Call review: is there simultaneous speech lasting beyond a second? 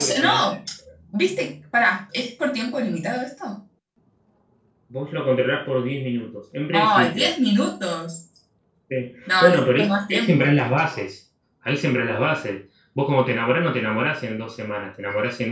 Yes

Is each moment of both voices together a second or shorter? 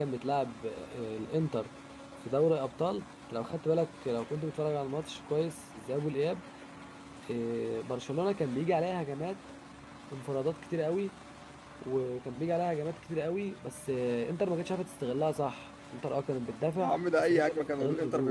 No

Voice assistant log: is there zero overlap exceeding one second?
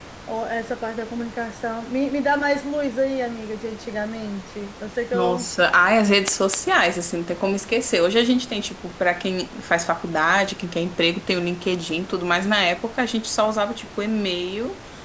Yes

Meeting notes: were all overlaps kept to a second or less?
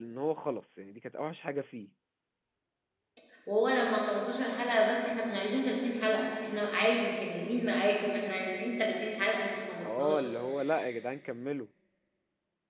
Yes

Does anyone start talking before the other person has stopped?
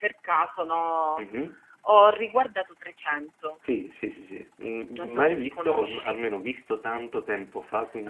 Yes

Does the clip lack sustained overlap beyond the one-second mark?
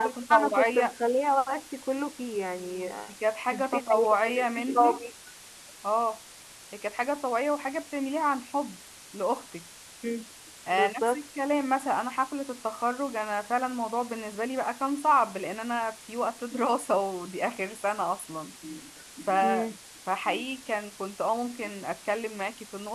No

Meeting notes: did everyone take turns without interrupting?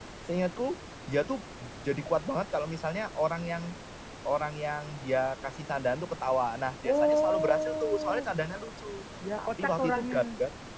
No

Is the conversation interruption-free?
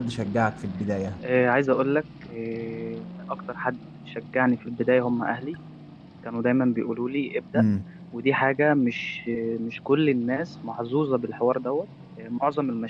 Yes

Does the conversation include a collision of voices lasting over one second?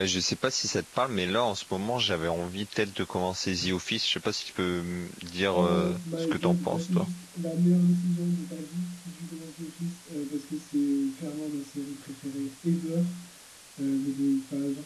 Yes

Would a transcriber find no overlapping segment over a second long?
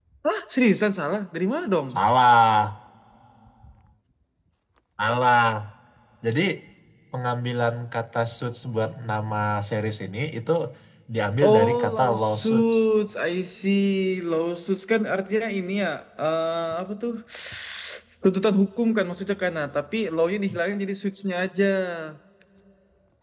No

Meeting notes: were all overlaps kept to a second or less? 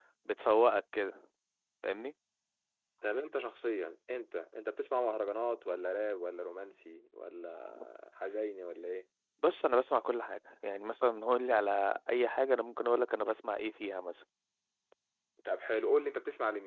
Yes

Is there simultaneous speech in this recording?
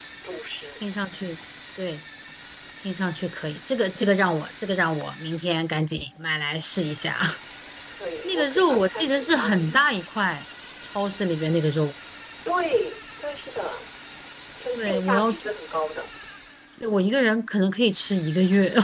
Yes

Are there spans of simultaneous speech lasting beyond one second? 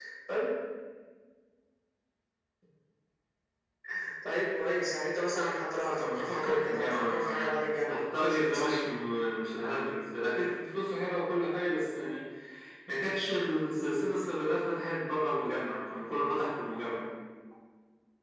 Yes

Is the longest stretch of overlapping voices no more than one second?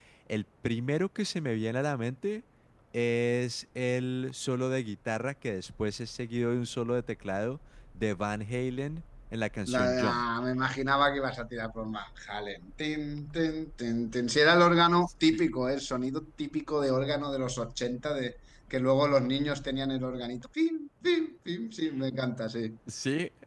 Yes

